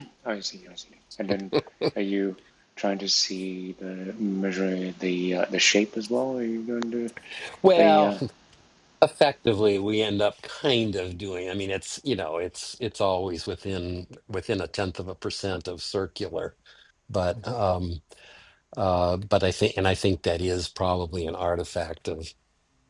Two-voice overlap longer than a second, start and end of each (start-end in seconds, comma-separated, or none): none